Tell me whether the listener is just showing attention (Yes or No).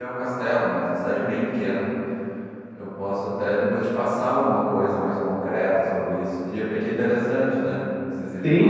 No